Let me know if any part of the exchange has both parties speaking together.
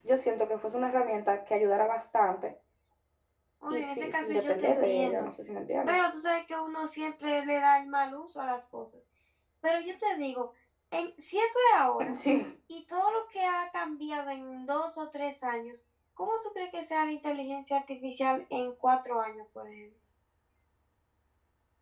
Yes, from 3.7 s

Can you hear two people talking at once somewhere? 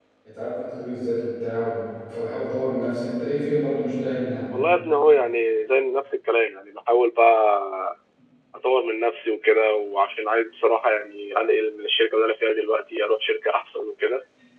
No

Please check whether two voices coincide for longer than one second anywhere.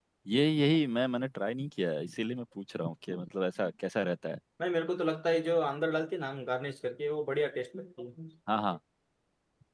No

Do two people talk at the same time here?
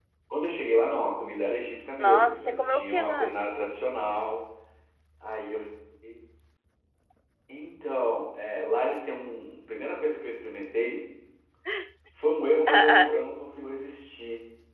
Yes, from 2.0 s

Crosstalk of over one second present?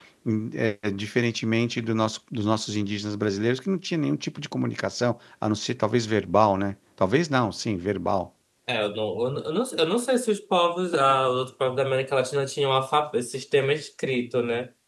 No

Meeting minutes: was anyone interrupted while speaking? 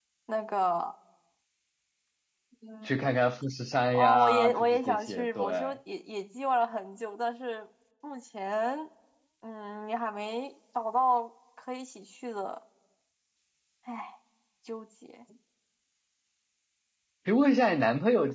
Yes, from 3.9 s

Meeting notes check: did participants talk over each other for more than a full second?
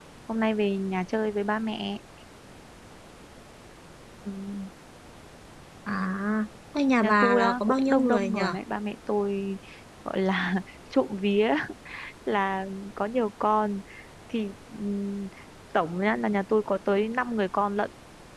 Yes, from 7.0 s

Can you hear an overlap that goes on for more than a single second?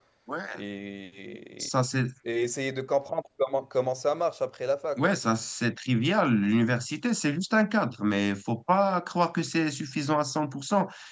No

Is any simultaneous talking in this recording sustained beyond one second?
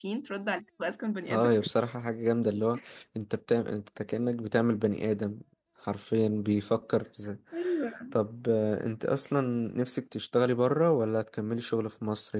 No

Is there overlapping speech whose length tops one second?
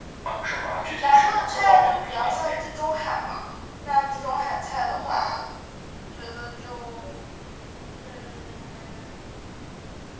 Yes, from 1.0 s

